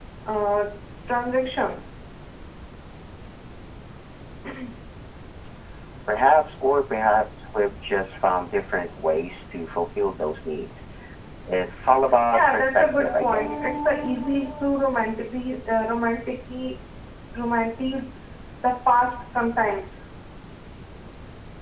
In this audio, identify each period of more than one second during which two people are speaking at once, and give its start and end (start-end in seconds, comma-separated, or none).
12.3-13.7